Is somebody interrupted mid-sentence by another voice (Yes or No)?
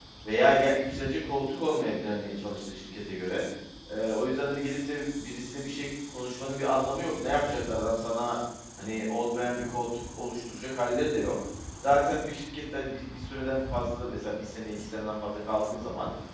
No